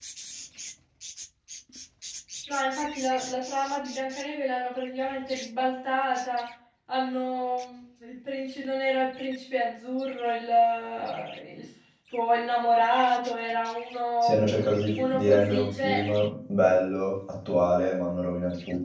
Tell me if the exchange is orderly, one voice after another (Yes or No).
No